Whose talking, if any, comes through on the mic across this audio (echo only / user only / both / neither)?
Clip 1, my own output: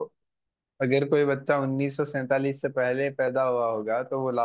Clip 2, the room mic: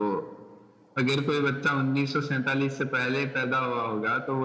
echo only